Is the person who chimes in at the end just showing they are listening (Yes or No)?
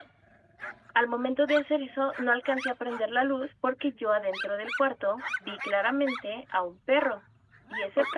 Yes